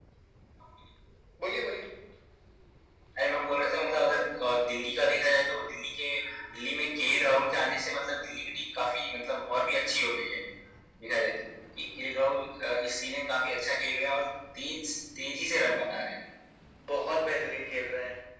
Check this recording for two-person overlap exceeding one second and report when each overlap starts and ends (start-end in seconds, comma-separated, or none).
none